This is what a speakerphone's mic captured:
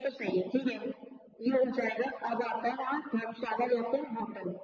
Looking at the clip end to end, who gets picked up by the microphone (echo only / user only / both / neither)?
echo only